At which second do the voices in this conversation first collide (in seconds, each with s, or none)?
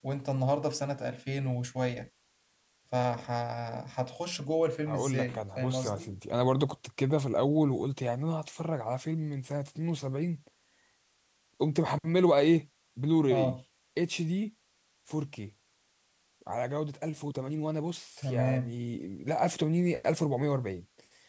4.9 s